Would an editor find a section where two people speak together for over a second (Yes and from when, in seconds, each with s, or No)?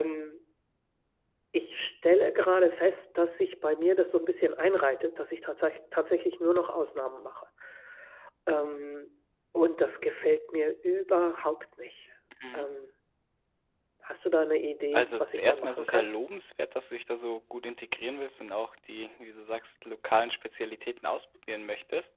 Yes, from 14.9 s